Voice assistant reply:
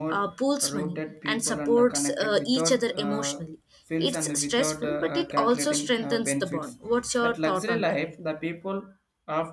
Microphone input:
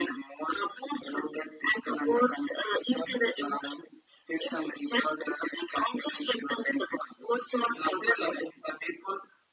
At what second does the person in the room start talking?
none

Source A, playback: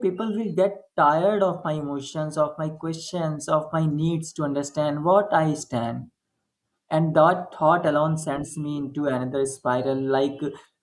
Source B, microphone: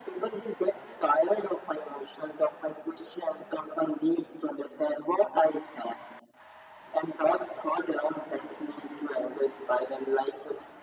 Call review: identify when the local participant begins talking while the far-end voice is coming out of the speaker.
none

